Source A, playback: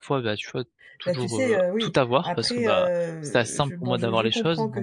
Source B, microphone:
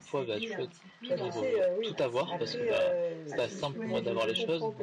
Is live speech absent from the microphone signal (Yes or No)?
No